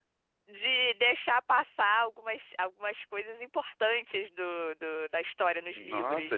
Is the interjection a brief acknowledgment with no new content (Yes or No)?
No